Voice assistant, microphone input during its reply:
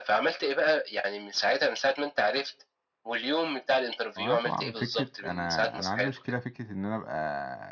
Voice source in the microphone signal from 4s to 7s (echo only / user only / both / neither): both